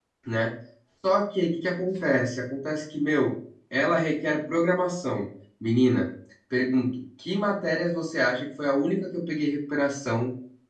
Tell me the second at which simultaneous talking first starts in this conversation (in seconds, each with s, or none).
none